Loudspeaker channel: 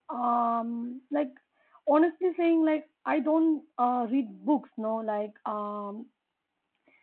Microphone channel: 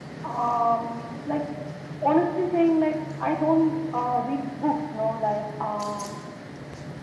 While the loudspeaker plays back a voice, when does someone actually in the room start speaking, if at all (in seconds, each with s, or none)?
none